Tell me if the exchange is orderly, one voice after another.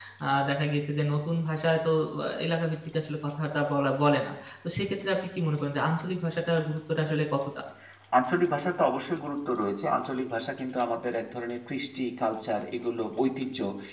Yes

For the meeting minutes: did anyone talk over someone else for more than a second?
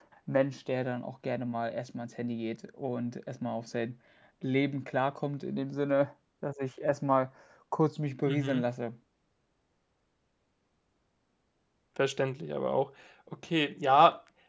No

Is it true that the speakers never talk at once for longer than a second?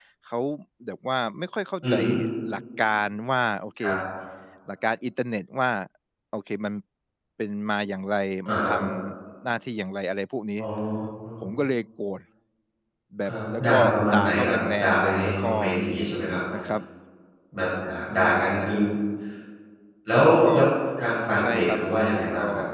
No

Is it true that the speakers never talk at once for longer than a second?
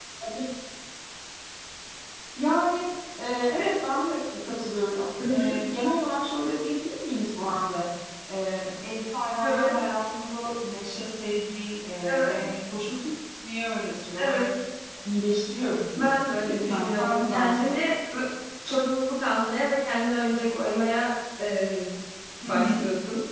No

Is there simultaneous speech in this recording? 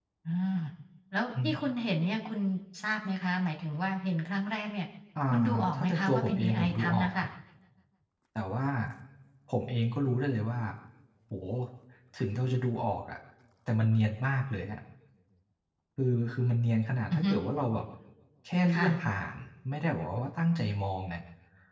Yes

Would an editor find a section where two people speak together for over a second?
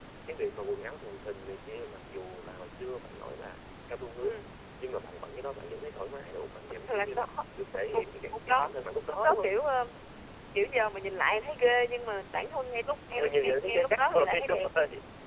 Yes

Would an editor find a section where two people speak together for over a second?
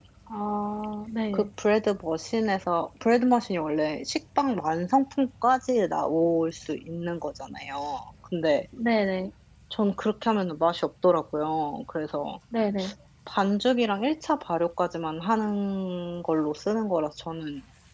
No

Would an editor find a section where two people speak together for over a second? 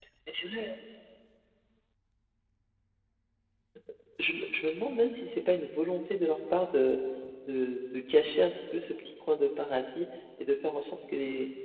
No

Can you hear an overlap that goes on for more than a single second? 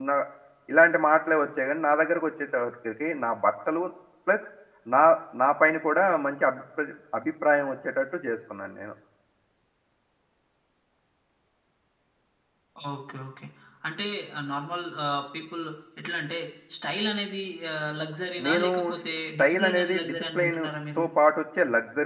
Yes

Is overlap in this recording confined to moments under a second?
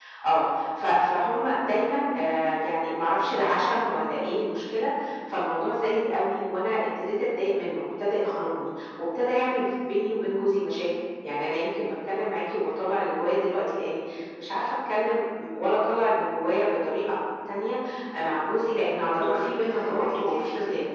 No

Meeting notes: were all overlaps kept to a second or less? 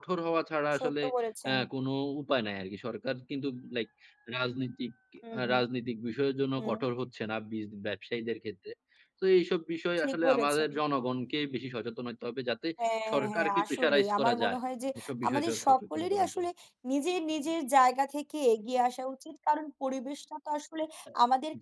No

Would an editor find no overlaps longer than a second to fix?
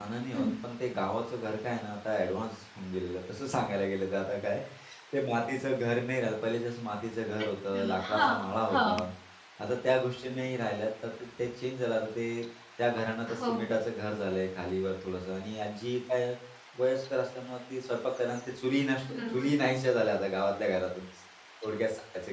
No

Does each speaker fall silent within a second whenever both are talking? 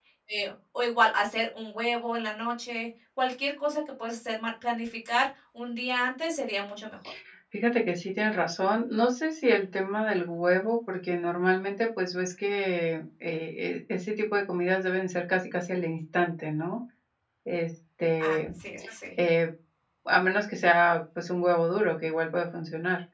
Yes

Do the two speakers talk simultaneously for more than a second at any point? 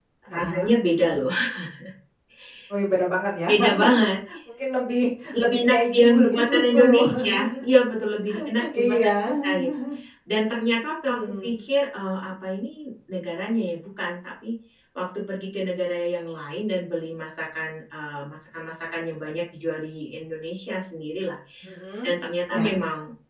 Yes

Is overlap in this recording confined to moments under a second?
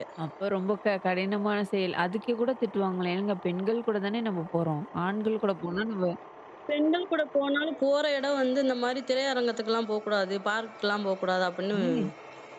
Yes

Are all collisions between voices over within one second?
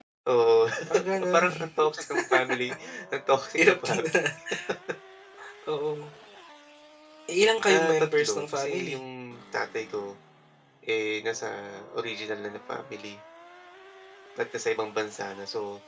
No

